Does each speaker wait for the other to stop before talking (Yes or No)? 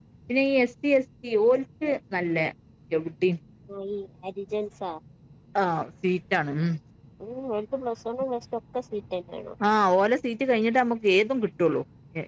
Yes